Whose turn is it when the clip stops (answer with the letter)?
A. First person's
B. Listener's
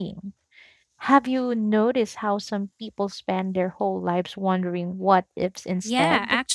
B